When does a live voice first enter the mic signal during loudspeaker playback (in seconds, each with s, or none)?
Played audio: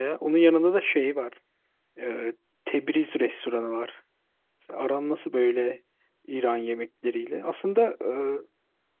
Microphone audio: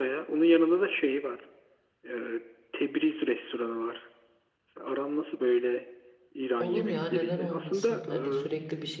6.6 s